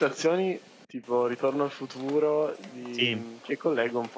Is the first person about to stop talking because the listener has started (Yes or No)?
No